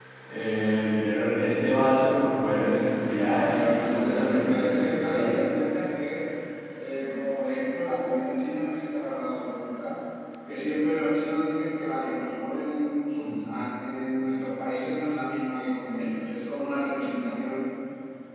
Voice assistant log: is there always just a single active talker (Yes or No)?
No